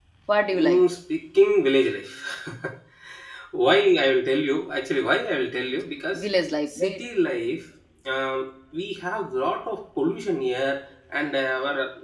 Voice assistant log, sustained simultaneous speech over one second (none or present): none